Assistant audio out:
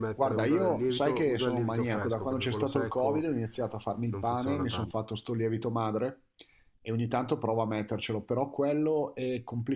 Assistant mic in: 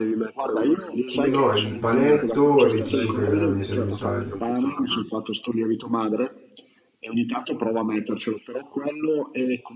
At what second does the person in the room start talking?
1.2 s

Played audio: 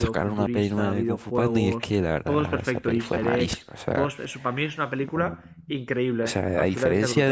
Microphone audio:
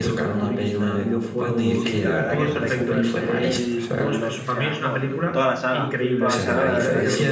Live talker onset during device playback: 1.7 s

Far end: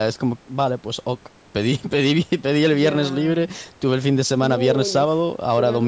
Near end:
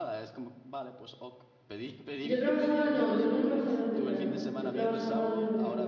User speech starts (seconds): 2.2 s

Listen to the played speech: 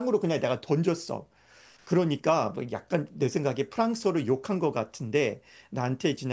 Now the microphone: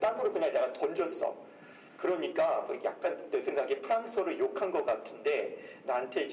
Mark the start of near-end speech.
none

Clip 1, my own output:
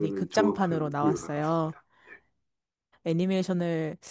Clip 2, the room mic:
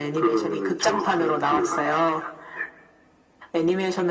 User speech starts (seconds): none

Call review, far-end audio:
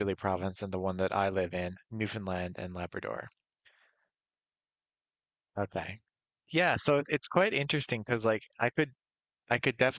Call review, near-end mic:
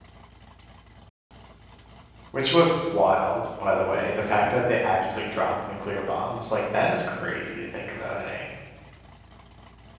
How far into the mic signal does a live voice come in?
2.3 s

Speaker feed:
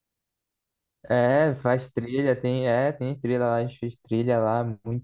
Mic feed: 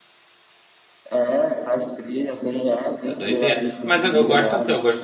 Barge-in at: 3.0 s

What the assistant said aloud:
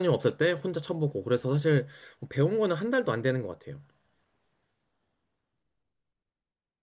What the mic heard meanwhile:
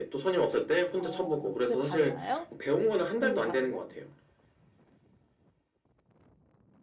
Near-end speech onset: 1.0 s

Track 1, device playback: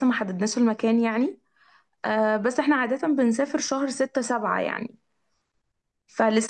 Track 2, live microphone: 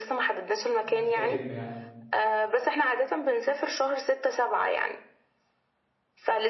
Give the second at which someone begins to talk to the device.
0.8 s

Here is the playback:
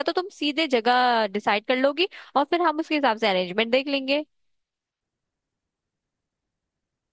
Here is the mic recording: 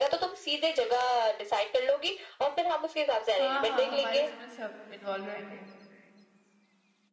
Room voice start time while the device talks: 3.4 s

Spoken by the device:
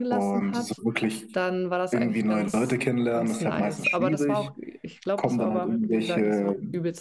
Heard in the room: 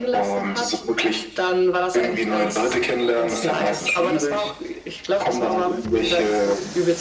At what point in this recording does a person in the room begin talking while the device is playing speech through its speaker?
none

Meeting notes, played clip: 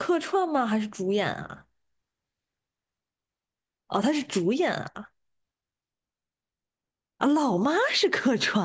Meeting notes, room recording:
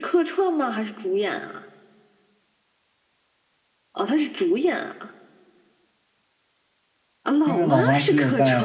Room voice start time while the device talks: 7.4 s

